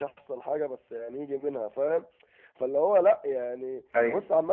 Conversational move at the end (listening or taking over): listening